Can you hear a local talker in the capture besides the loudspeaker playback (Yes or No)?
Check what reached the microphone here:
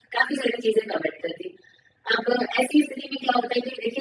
No